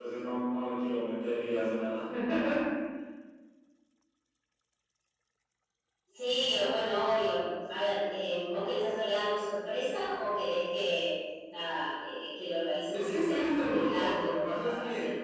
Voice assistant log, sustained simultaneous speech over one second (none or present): present